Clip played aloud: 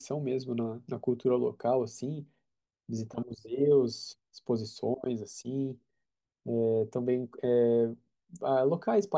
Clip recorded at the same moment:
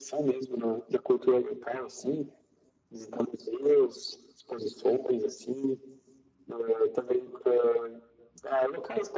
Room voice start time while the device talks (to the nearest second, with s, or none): none